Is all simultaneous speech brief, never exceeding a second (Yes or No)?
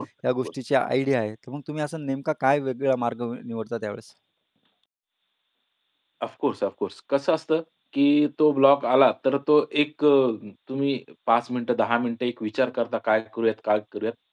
Yes